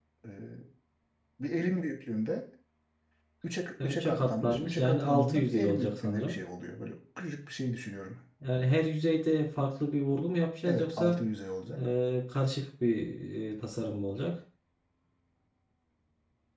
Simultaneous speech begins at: 3.8 s

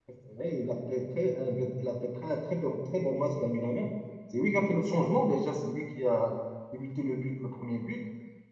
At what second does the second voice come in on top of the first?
none

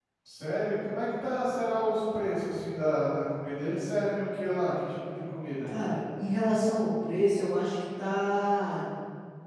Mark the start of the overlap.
none

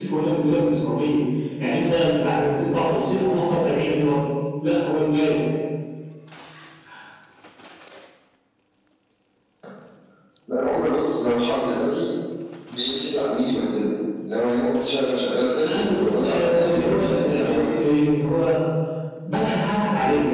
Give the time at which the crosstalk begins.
15.5 s

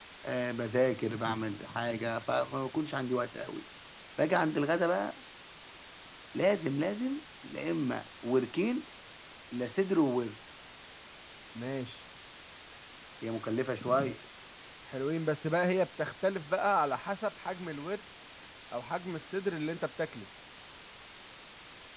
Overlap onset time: none

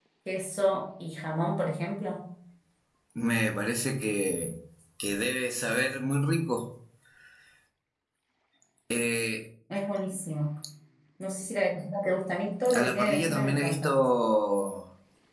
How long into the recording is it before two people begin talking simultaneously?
12.6 s

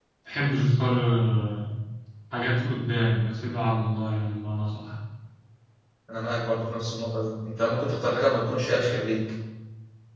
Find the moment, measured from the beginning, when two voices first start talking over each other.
none

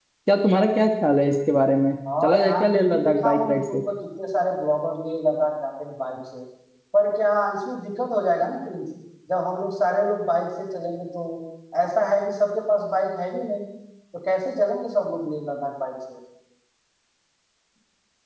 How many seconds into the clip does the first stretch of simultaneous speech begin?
2.0 s

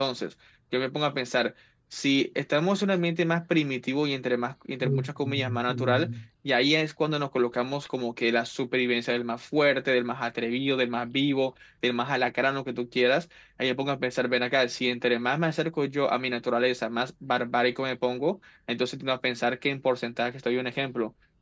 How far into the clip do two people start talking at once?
4.8 s

